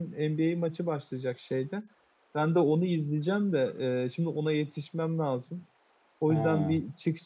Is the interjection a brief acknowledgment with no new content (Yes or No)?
Yes